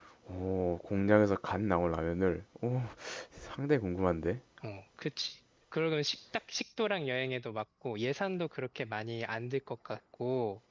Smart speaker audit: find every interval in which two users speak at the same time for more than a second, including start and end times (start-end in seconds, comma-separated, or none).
none